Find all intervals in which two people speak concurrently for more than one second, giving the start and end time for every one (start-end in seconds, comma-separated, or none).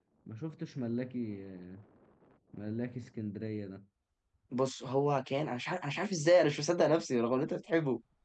none